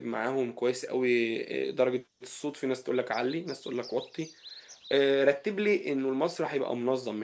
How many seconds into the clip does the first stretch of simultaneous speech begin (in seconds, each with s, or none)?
none